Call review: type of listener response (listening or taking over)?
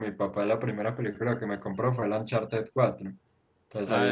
taking over